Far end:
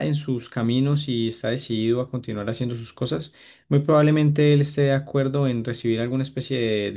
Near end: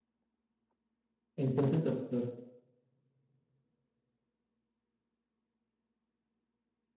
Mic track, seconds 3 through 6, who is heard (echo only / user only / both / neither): neither